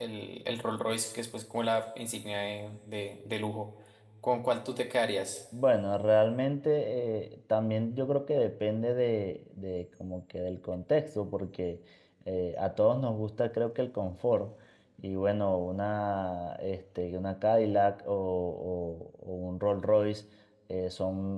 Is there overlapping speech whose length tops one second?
No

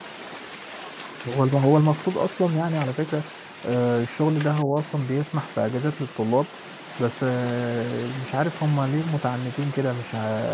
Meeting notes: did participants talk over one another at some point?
No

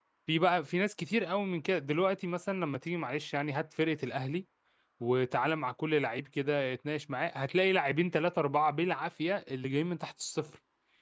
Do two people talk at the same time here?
No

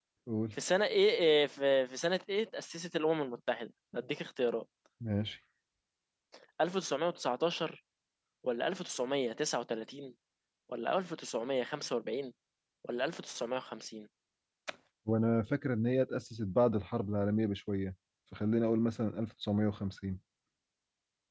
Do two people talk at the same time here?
No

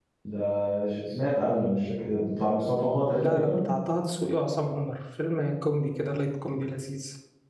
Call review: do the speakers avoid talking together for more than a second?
Yes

